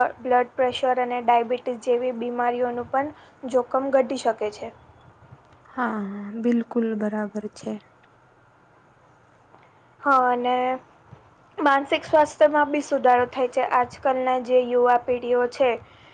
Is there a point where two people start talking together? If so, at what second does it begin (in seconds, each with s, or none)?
none